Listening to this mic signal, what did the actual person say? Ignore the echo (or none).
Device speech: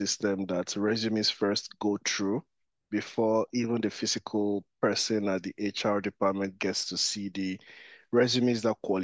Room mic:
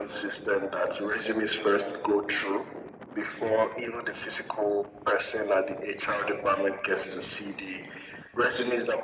none